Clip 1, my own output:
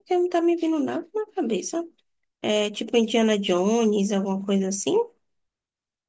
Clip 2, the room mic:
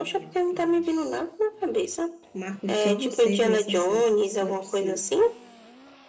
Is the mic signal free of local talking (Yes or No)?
No